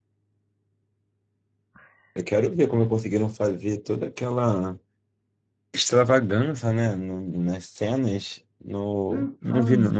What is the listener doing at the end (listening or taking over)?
listening